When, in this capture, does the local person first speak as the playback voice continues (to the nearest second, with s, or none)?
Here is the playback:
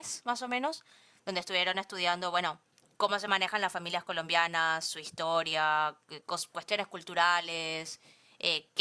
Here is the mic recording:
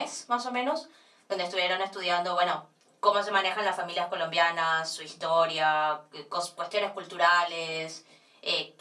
none